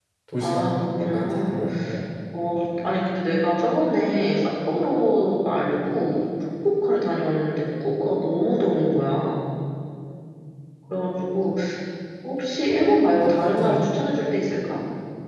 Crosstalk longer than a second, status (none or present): present